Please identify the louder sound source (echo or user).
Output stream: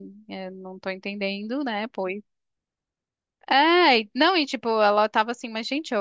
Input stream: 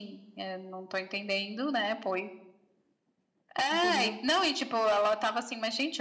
echo